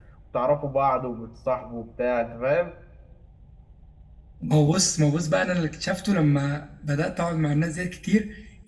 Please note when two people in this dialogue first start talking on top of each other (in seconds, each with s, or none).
none